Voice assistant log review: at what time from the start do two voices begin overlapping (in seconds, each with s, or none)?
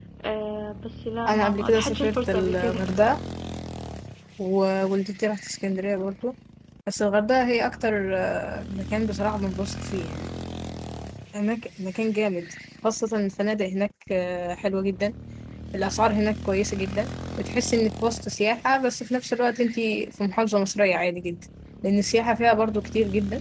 1.3 s